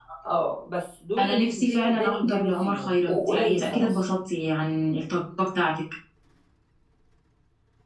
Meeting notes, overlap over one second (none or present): present